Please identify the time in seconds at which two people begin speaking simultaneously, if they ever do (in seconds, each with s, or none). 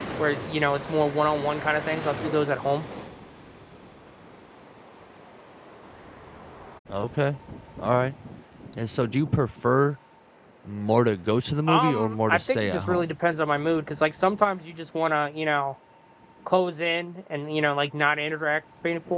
11.7 s